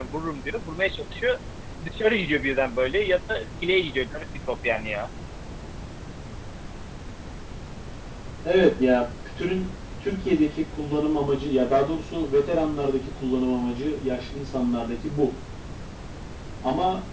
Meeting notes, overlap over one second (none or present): none